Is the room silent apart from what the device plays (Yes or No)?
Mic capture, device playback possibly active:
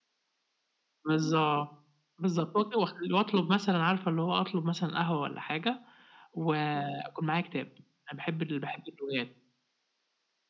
Yes